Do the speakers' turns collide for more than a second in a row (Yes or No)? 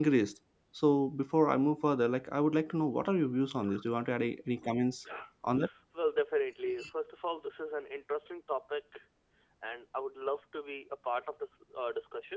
No